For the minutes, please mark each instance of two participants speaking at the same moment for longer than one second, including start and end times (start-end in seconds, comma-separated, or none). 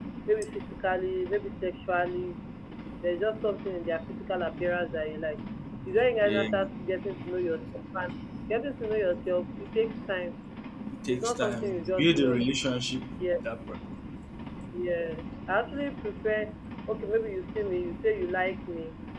11.1-12.4